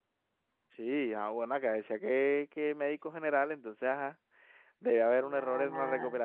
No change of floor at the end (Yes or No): Yes